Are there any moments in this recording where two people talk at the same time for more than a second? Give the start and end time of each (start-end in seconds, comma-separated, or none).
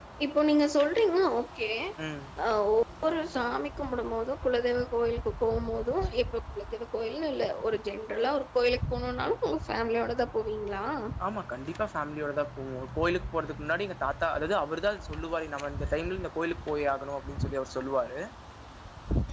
none